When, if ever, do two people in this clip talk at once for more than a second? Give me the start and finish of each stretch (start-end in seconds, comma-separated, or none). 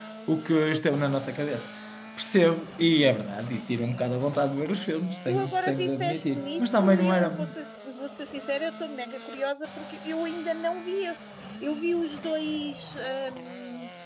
5.3-7.4